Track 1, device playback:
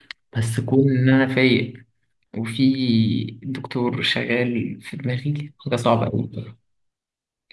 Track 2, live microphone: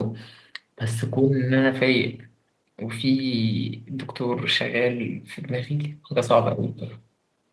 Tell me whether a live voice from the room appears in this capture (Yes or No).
No